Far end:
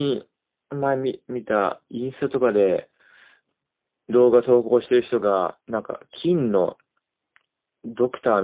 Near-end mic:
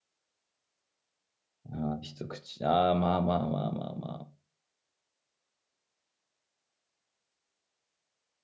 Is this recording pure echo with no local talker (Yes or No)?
No